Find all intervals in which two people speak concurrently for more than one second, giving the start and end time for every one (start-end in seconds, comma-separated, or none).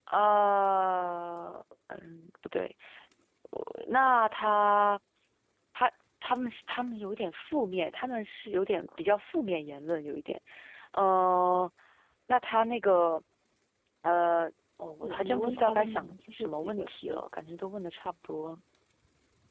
15.0-17.2